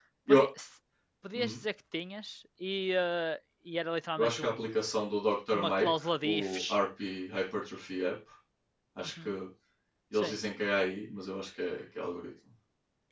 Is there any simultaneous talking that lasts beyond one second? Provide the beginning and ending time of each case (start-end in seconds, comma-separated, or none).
5.5-6.8